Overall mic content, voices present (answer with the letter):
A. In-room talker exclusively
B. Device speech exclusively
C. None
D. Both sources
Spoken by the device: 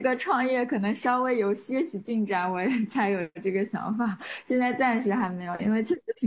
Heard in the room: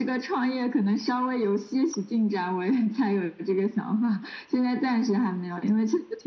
B